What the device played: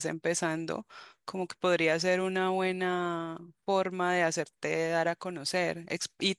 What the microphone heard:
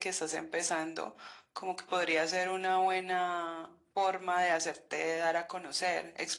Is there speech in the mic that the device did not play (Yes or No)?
No